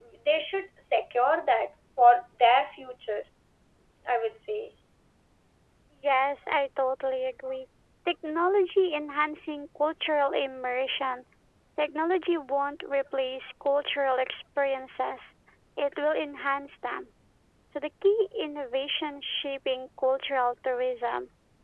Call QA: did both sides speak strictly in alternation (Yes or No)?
Yes